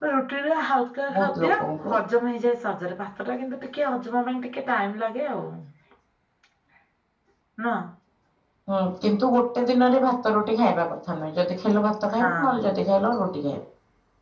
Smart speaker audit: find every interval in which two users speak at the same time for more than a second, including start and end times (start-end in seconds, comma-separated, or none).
none